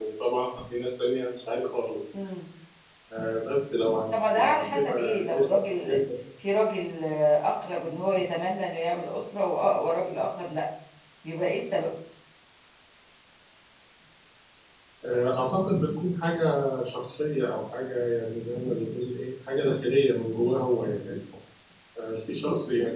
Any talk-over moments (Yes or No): Yes